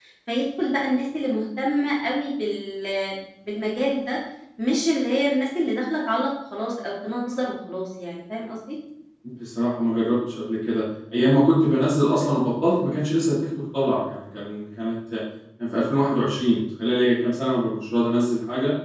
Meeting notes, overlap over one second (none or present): none